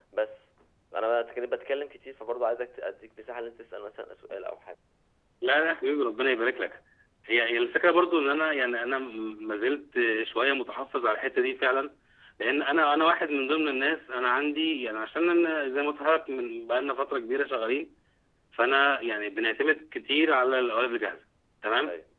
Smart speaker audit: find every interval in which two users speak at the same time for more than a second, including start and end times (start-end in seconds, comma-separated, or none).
none